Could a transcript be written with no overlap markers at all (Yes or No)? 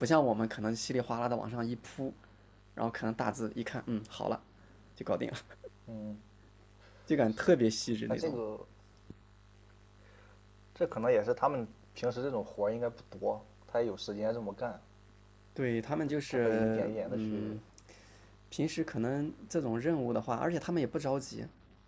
No